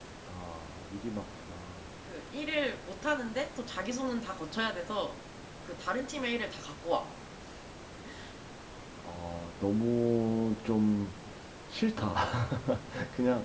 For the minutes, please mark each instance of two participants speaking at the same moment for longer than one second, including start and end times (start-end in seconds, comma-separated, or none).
none